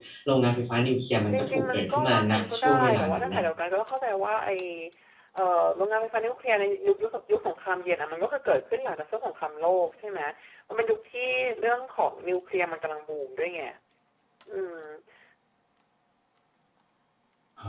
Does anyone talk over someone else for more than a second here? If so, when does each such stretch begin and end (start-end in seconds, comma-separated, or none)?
1.3-3.5